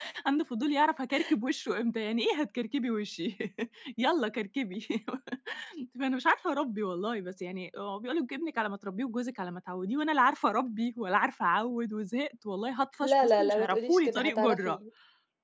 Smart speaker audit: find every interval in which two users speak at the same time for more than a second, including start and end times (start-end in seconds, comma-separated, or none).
13.0-14.8